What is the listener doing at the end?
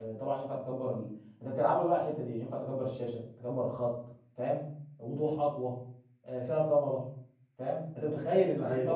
listening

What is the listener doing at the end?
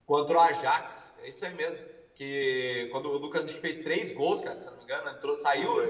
listening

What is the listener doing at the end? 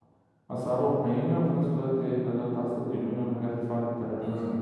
taking over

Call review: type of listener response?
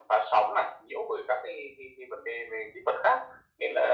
listening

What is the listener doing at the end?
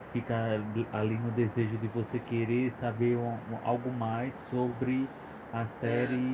listening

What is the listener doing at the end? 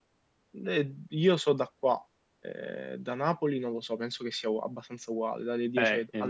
taking over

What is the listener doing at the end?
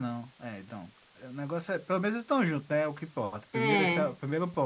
listening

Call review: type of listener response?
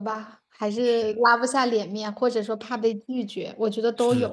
taking over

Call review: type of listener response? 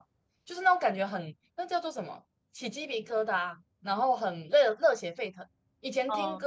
listening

